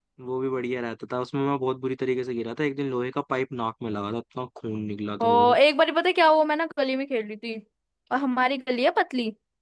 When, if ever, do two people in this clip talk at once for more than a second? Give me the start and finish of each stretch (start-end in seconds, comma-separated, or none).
none